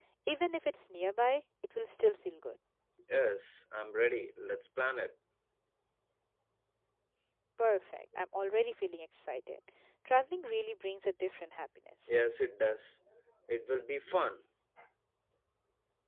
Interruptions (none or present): none